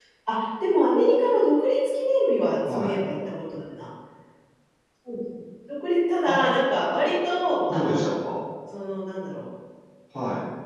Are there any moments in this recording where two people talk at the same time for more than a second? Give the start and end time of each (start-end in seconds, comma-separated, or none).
none